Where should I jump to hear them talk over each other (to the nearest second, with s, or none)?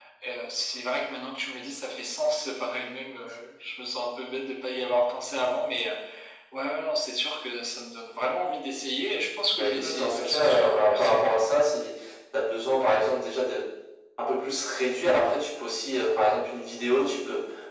9 s